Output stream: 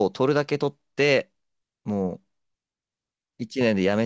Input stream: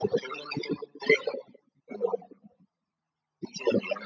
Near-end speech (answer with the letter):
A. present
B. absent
B